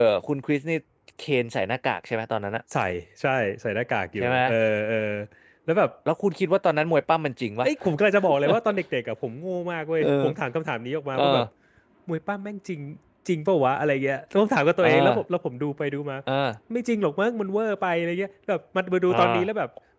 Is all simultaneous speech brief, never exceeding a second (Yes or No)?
Yes